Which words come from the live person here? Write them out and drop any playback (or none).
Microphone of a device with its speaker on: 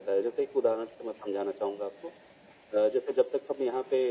none